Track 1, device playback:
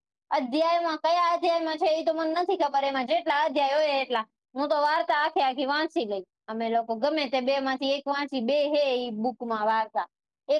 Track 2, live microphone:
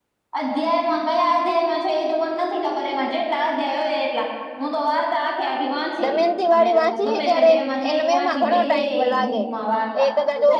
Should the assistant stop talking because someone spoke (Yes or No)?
Yes